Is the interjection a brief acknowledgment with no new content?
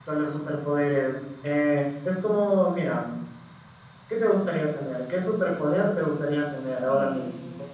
No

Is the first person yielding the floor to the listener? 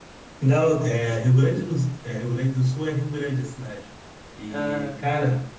No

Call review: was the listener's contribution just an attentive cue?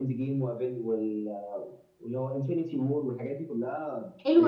No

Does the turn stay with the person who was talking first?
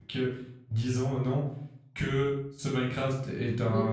No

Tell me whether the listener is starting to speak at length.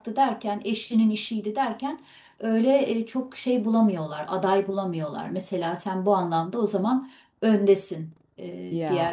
No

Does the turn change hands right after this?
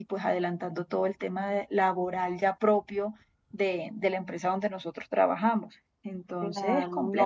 Yes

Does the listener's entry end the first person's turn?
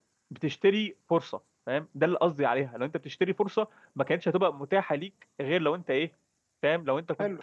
Yes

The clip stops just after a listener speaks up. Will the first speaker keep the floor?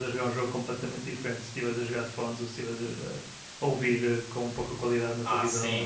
No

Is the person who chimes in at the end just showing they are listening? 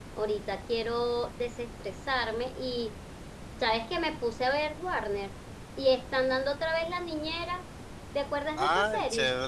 No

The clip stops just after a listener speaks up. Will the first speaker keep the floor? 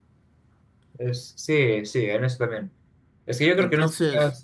Yes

